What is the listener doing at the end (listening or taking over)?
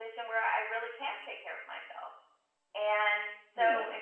listening